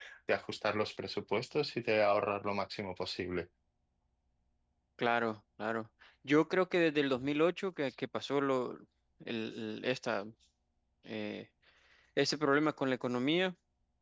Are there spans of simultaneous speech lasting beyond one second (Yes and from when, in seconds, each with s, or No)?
No